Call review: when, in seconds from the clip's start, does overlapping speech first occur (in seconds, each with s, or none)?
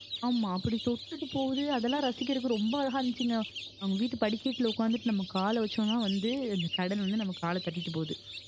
none